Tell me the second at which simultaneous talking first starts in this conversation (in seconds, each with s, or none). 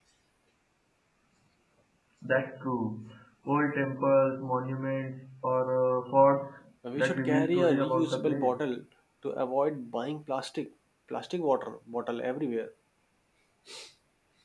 6.8 s